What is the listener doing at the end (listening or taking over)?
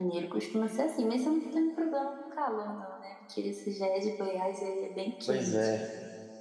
taking over